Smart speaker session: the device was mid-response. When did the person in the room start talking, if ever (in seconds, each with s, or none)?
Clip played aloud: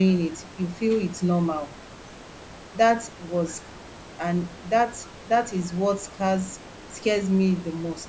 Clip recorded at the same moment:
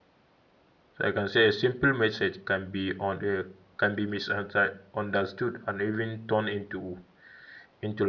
0.9 s